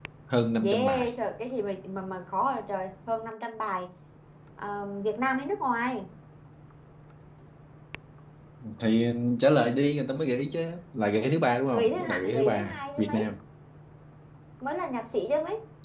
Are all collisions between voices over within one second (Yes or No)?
No